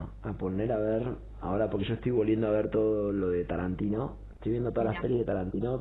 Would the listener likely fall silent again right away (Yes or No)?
Yes